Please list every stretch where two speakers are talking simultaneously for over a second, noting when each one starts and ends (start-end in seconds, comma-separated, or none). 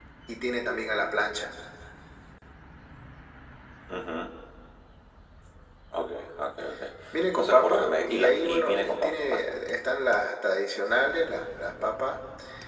7.4-9.4